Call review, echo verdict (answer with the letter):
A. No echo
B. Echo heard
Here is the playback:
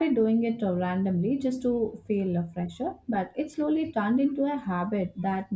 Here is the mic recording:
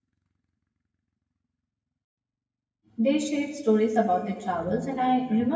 A